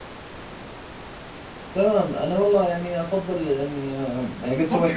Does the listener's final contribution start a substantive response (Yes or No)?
Yes